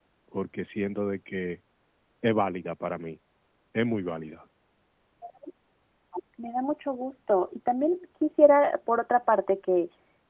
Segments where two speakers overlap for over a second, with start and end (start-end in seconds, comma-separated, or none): none